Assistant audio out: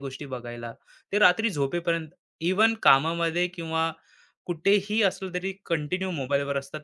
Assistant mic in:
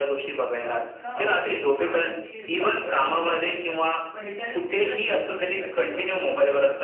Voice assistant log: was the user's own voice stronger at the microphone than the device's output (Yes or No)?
No